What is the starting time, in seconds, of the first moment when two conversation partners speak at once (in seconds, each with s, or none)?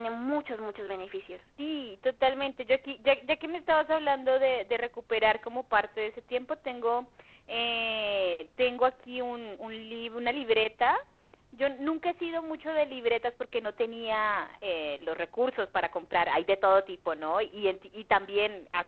none